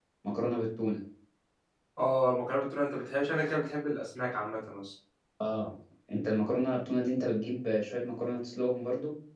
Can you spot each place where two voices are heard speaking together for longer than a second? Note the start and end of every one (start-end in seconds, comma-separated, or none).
none